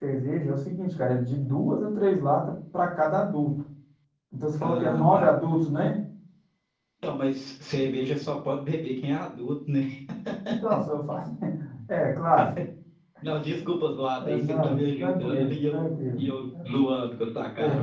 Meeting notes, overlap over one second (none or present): present